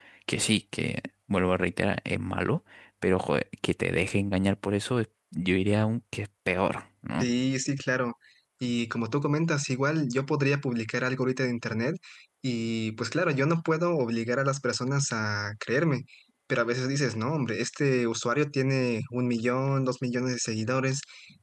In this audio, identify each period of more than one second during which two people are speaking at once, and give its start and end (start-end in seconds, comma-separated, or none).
none